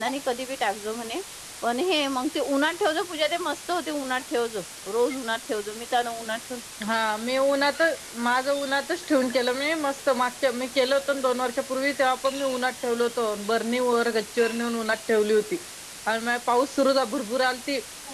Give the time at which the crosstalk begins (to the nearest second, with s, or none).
none